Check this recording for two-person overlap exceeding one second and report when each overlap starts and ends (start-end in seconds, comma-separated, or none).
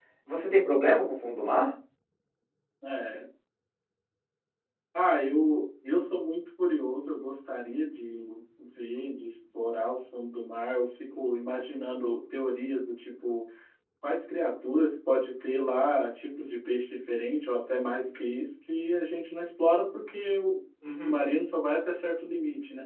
none